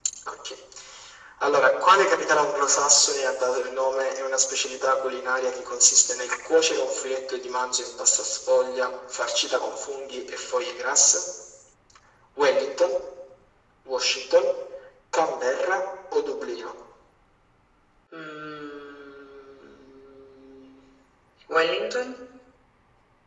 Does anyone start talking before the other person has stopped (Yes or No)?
No